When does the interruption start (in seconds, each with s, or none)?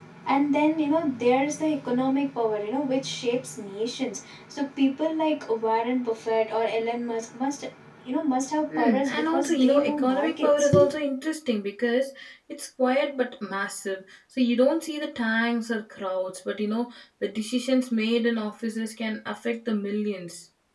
8.8 s